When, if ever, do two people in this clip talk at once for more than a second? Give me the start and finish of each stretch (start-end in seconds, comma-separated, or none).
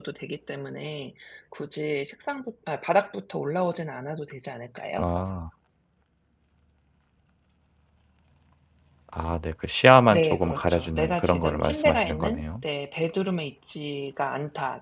10.1-12.6